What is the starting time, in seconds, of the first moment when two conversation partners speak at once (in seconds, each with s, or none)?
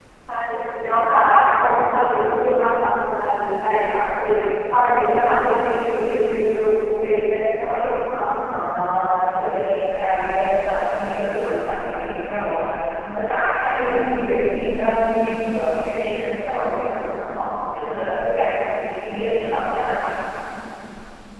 none